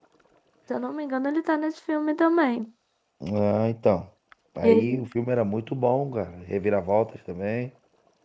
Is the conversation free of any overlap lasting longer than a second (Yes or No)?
Yes